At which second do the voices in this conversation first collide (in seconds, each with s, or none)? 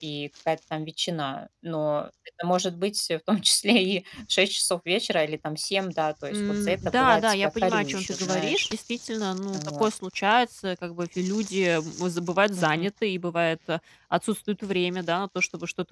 6.3 s